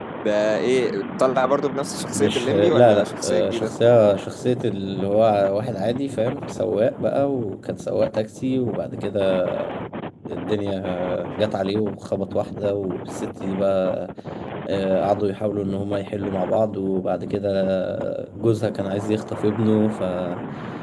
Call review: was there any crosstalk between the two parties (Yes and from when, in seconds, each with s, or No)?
Yes, from 2.1 s